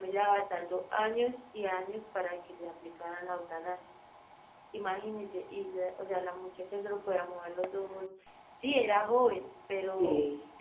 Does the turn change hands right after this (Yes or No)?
No